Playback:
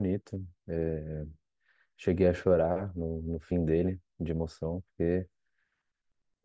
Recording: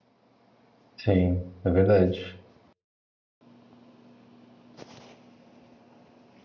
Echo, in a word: none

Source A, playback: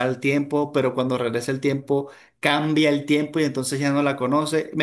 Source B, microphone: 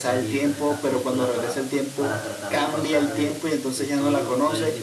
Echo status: present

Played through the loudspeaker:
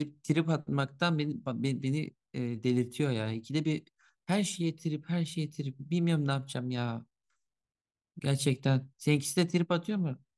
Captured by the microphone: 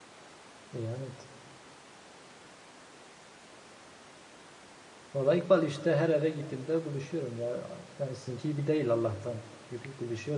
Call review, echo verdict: none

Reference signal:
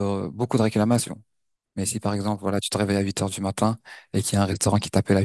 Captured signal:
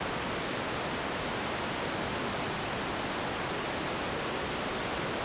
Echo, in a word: none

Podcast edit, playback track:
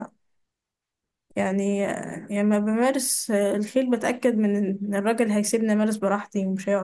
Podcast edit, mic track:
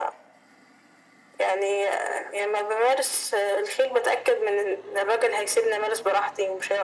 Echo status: present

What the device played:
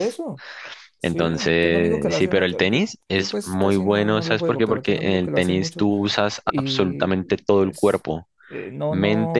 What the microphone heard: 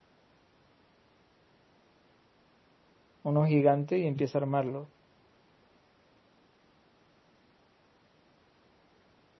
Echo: none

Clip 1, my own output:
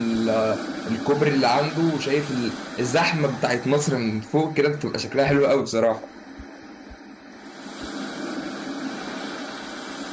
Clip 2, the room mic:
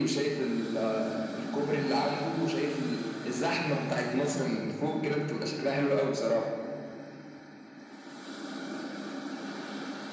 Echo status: present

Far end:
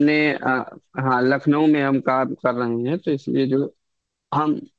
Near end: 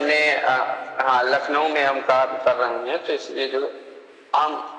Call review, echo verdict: present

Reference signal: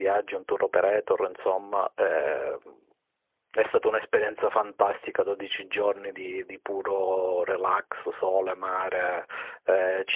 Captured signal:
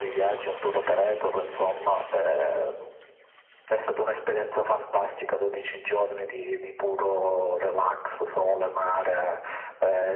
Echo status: present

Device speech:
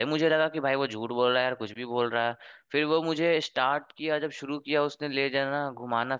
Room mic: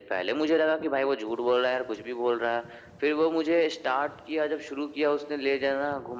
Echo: present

